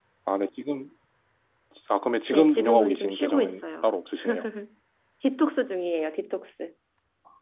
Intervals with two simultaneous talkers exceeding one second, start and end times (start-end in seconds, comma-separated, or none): 2.3-3.9